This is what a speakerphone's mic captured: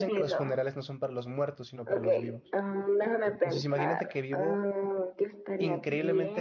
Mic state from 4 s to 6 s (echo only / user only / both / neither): both